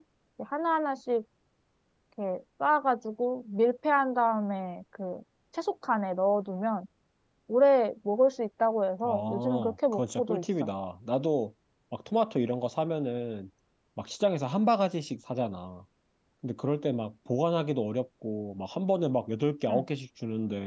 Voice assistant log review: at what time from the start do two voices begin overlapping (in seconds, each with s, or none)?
9.0 s